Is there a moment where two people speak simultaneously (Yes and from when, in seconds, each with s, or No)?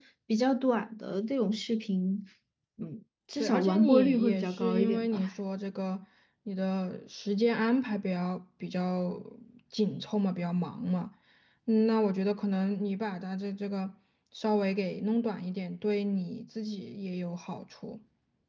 Yes, from 3.4 s